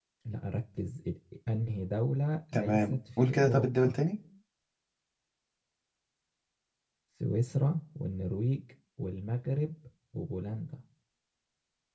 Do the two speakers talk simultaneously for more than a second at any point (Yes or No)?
Yes